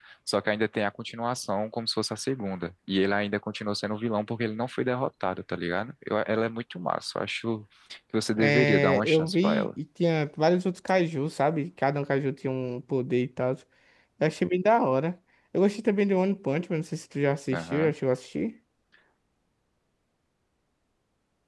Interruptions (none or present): present